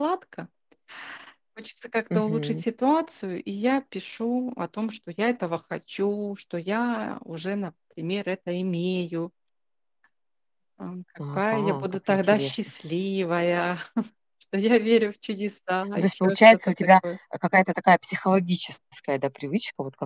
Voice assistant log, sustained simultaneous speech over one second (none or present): present